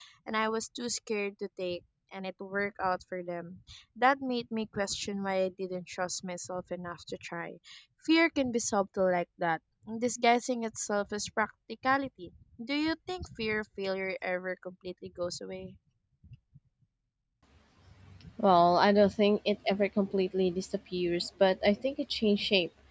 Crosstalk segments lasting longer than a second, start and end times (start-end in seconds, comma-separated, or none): none